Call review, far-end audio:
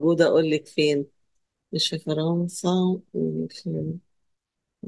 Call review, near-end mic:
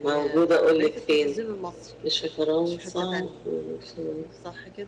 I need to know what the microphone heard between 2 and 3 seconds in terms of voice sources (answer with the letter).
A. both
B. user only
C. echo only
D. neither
A